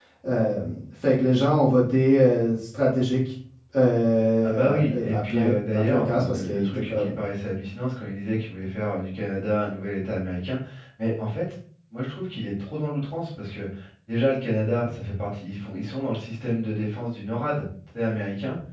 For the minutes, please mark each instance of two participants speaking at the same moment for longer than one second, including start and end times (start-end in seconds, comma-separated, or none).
4.4-7.1